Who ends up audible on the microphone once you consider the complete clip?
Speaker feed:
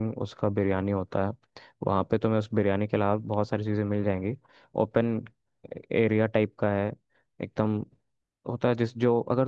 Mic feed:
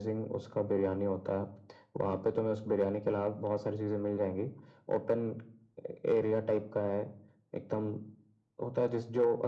echo only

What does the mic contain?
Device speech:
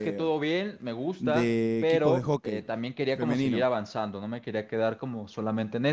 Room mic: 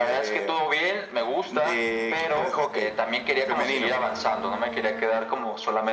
echo only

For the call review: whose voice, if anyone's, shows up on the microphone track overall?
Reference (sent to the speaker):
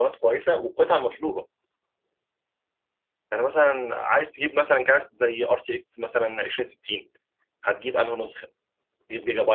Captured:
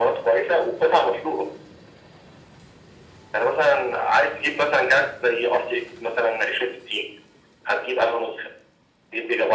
echo only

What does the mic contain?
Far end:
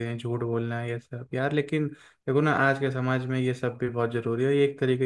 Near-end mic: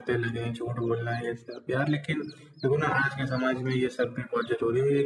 echo only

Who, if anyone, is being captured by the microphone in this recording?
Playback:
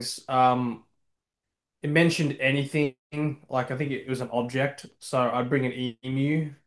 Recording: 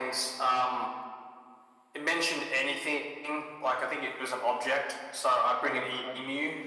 both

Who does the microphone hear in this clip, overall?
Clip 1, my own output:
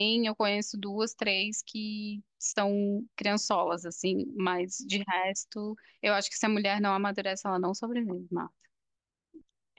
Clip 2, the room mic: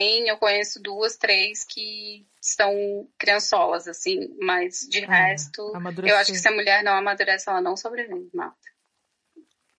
both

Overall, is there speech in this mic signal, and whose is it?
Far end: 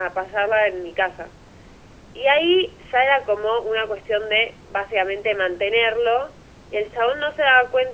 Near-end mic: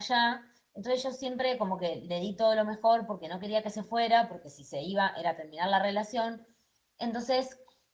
user only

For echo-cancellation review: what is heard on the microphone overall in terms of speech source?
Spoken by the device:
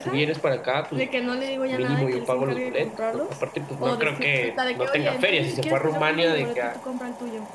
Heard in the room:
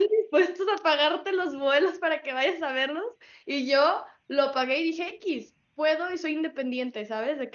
user only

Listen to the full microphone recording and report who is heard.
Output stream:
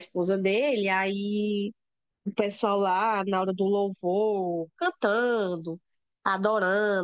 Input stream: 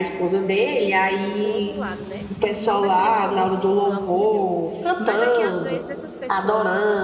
both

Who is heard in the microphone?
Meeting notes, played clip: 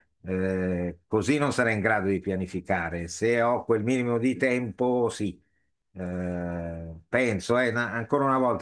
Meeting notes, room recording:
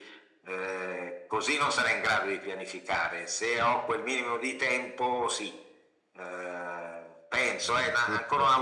both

